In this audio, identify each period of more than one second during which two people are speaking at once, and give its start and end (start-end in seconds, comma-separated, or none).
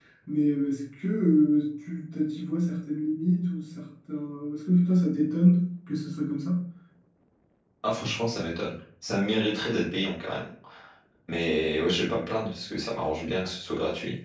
none